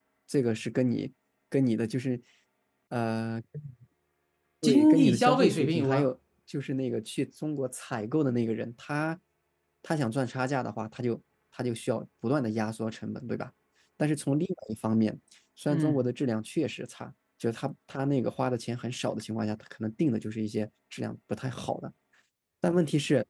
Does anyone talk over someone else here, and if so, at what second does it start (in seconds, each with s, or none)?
4.6 s